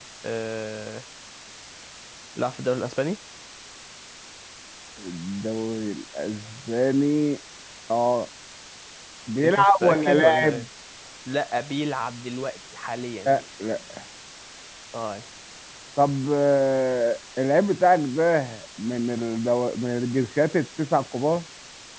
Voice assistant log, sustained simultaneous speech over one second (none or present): present